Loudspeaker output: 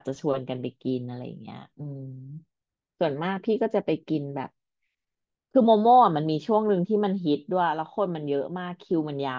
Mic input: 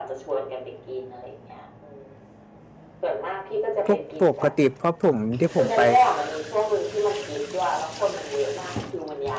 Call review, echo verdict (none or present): present